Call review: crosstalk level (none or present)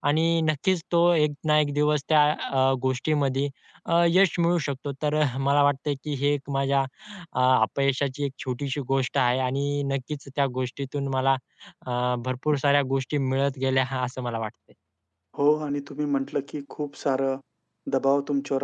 none